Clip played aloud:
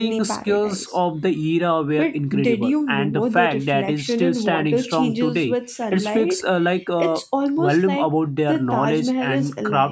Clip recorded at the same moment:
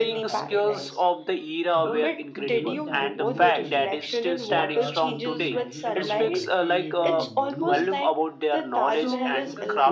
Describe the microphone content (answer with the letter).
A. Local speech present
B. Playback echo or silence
A